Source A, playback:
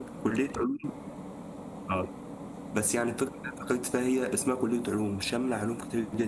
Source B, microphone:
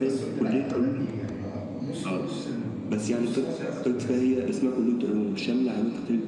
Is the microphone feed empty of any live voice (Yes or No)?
No